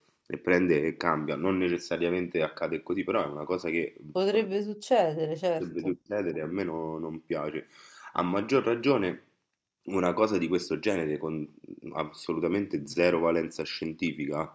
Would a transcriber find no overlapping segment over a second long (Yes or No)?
Yes